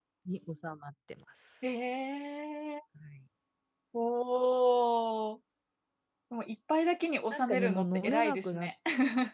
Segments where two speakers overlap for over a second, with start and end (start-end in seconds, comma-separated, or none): 7.3-8.7